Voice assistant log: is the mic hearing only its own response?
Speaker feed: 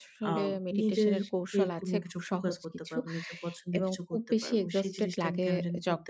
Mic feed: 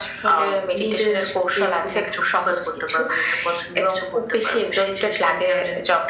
Yes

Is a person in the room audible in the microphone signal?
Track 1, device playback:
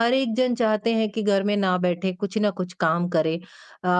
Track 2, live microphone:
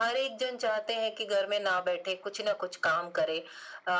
No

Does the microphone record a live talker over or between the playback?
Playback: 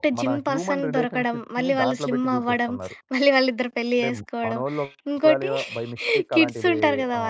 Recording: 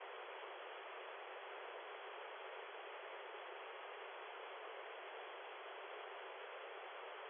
No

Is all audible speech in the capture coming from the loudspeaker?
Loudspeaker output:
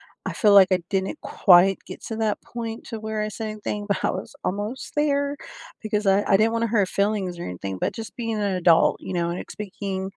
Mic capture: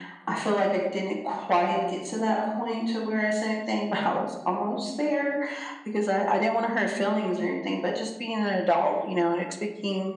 Yes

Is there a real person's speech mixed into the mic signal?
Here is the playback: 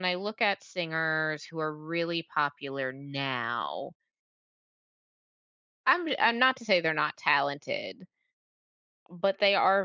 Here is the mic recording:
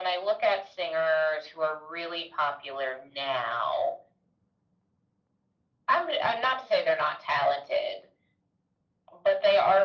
No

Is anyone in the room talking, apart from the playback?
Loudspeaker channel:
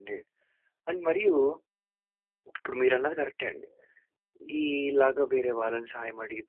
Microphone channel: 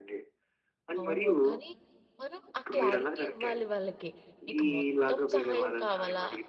Yes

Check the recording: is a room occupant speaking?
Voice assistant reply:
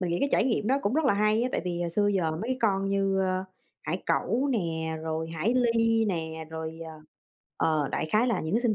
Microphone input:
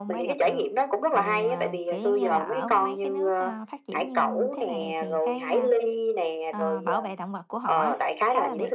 Yes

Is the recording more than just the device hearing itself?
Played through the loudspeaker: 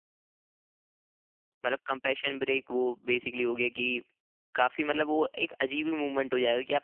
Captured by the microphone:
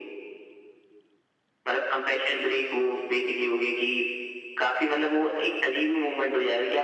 No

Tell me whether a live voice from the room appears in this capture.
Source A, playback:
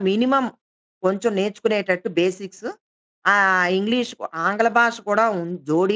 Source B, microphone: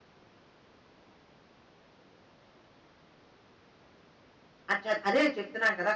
Yes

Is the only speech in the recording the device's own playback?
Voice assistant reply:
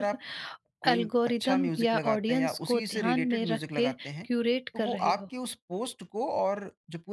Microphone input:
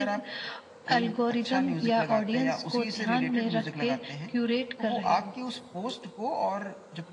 Yes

